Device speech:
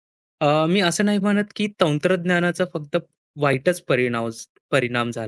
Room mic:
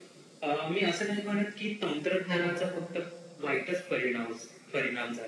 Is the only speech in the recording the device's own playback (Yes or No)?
No